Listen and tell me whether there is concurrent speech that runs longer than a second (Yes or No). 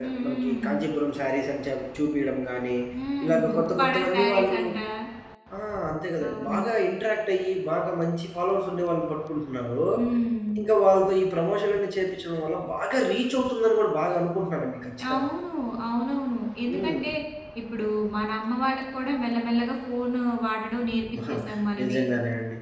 Yes